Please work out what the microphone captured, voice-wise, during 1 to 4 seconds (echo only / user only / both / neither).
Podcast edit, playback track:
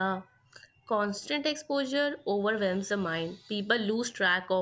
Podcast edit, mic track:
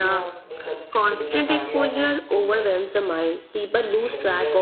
both